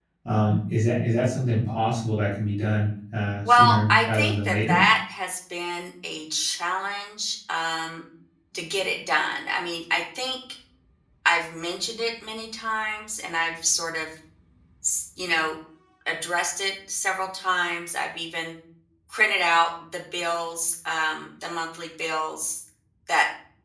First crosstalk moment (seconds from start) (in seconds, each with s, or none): 3.5 s